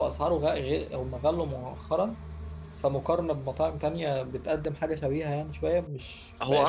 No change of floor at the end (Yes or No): Yes